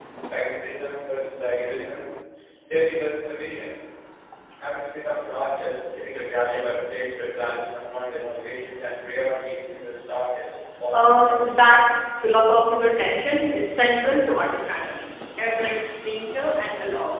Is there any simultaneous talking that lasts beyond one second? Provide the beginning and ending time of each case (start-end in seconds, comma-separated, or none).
none